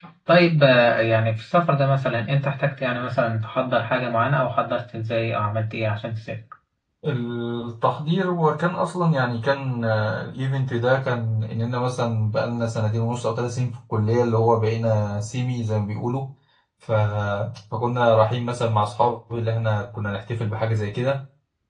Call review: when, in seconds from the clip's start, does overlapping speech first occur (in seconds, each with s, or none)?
none